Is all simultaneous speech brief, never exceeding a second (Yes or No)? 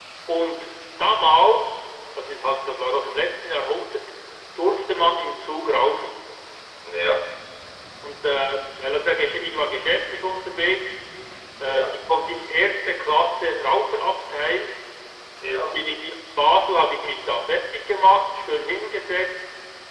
Yes